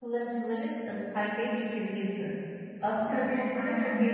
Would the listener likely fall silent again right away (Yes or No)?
Yes